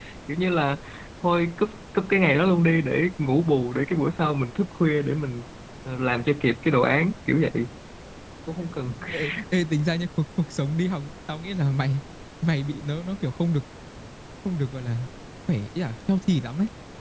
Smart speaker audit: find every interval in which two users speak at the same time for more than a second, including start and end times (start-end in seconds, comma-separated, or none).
none